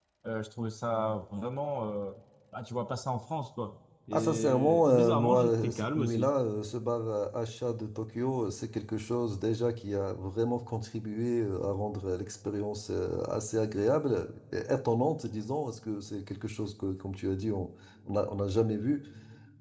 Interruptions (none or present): present